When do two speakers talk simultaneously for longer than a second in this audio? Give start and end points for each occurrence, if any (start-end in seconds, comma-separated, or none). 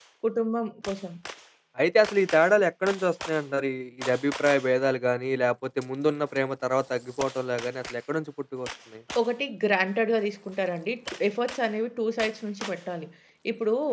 none